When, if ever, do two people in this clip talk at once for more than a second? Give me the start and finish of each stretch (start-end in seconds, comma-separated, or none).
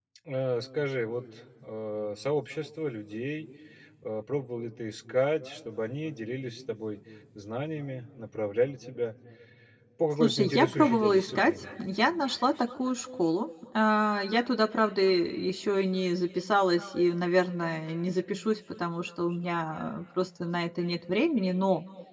10.2-11.5